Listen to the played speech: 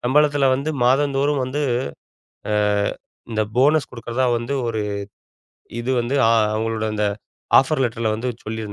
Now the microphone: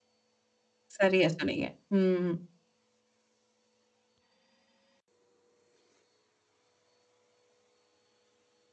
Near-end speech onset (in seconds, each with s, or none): 1.0 s